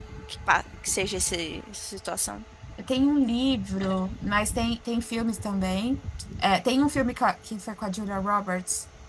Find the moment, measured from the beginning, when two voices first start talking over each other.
none

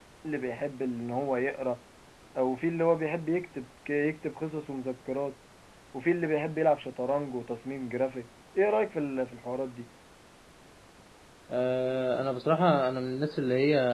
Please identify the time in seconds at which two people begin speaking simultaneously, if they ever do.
none

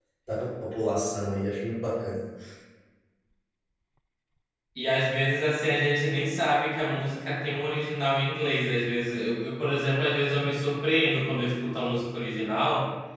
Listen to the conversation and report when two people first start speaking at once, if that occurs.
none

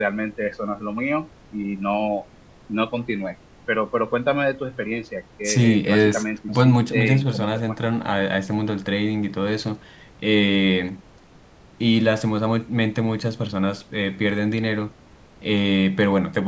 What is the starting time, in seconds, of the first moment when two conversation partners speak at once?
5 s

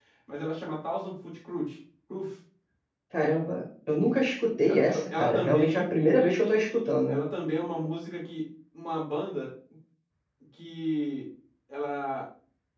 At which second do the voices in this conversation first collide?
5 s

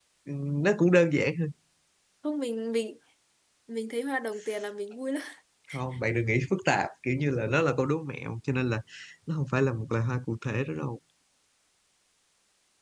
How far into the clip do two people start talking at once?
none

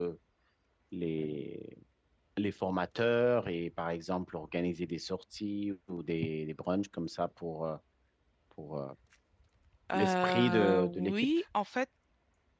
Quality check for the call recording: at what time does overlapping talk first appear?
10 s

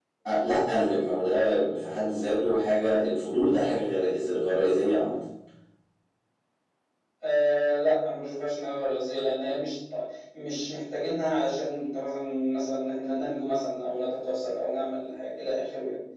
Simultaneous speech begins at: none

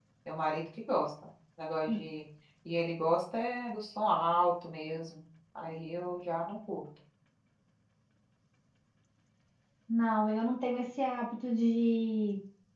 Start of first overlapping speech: none

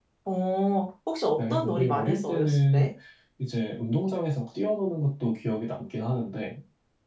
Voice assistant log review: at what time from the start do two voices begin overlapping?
1 s

